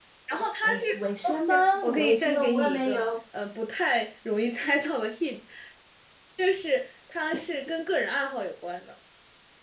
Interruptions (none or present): present